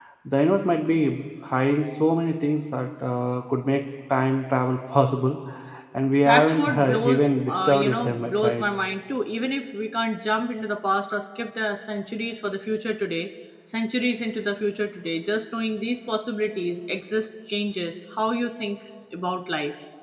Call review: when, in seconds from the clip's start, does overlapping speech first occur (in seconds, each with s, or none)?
6.2 s